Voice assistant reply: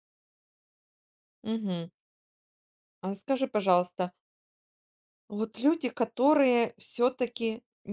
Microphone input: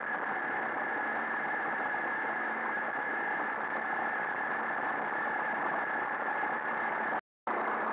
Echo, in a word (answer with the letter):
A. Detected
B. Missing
B